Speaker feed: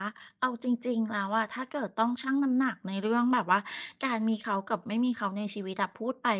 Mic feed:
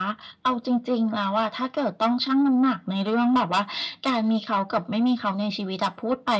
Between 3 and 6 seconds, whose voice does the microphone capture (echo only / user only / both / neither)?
echo only